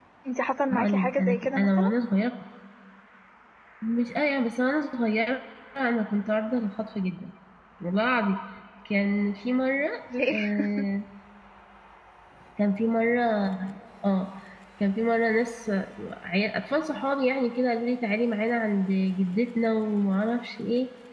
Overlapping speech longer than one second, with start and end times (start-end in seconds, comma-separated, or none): 0.7-1.9